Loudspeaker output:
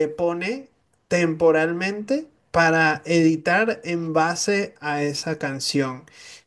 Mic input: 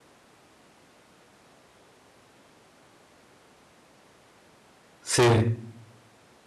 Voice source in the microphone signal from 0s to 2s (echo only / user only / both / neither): neither